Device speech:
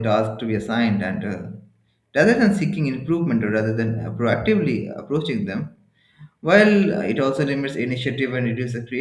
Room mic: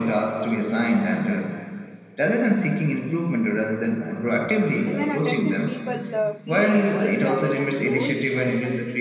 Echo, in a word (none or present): present